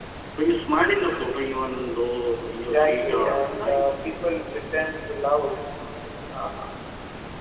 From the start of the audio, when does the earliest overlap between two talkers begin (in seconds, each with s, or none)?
2.6 s